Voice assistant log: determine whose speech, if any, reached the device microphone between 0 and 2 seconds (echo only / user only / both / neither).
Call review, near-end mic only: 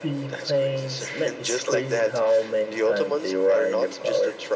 echo only